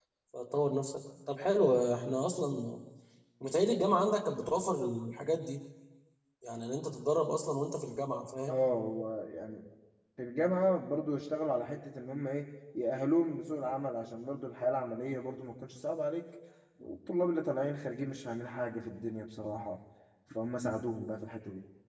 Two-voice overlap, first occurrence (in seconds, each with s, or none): none